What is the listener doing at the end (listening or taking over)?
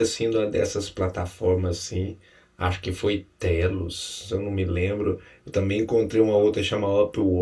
listening